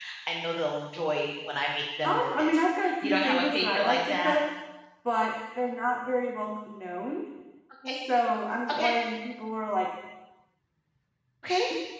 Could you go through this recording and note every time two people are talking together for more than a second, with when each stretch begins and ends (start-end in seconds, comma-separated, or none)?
2.0-4.4